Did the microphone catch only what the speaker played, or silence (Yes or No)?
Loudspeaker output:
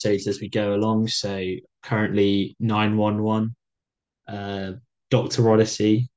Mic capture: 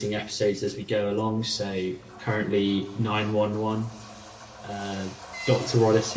Yes